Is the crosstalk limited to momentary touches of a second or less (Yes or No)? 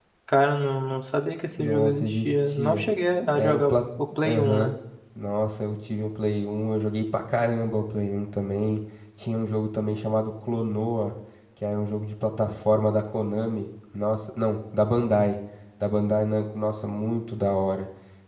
No